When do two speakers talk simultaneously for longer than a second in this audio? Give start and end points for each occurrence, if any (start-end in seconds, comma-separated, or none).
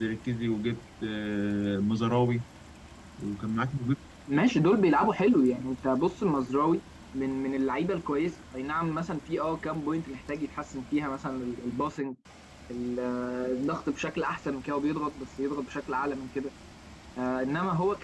none